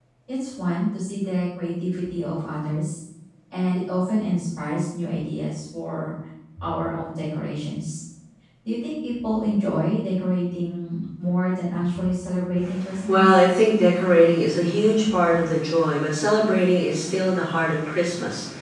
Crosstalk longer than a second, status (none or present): none